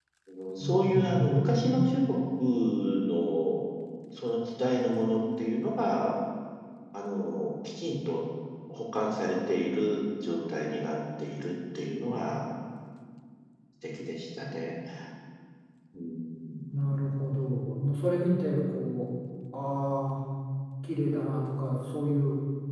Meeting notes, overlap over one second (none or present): present